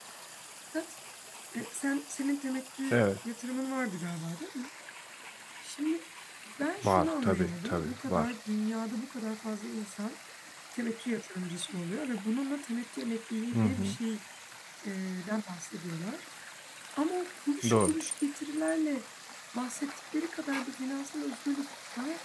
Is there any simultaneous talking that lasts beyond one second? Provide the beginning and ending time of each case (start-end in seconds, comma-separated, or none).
6.8-8.3